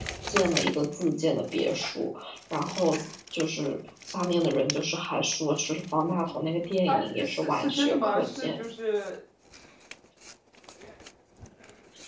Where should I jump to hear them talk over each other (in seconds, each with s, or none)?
6.9 s